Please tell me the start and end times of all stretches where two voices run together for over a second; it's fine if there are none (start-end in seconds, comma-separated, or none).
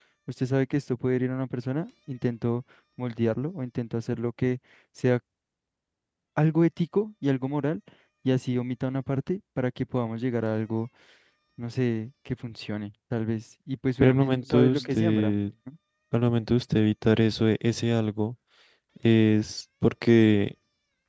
14.0-15.3